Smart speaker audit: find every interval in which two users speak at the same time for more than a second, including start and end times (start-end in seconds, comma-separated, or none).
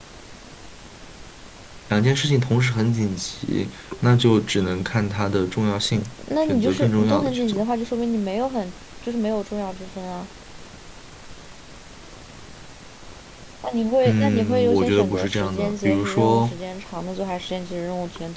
6.4-7.7, 14.1-16.6